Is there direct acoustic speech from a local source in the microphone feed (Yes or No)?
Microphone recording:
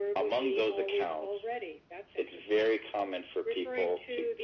No